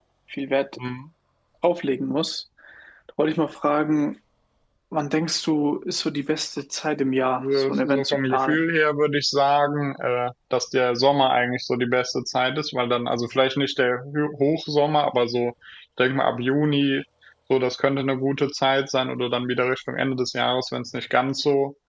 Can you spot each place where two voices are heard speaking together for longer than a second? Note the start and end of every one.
7.4-8.6

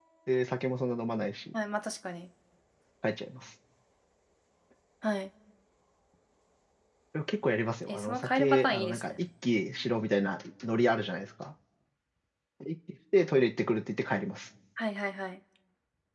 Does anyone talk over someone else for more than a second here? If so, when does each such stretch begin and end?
7.9-9.1

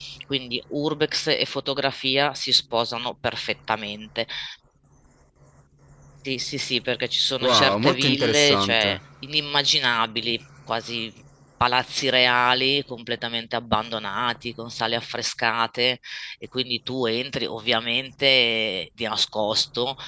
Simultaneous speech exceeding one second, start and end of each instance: 7.4-9.0

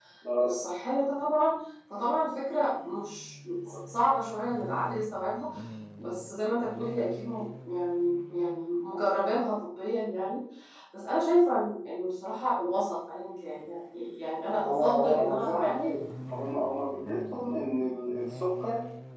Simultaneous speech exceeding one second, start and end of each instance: 14.7-16.0

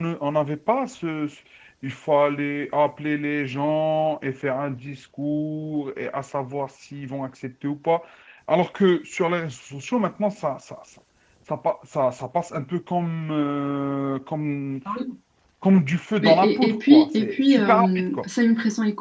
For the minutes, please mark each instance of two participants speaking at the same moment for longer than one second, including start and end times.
16.2-18.2

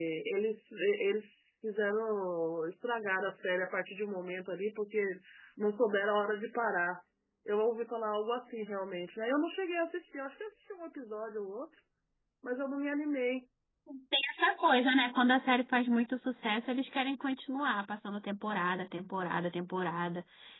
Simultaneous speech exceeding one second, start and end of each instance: none

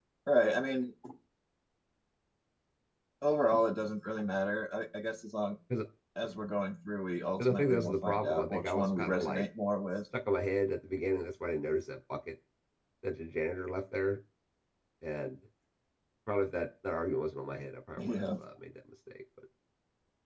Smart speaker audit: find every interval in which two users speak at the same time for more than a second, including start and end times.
7.4-9.4

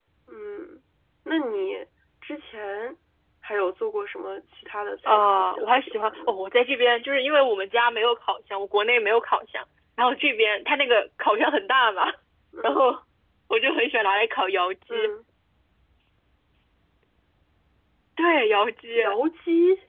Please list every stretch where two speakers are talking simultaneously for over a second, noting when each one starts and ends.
5.0-6.4

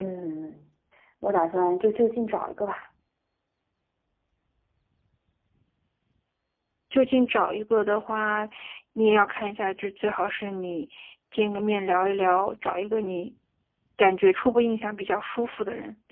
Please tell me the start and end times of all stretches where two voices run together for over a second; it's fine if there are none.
none

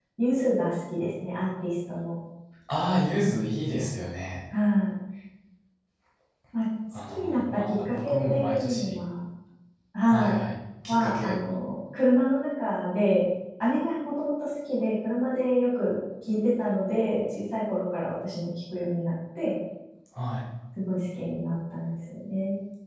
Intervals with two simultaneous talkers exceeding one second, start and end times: 7.1-9.0

